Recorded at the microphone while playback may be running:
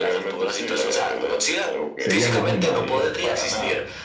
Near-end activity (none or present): present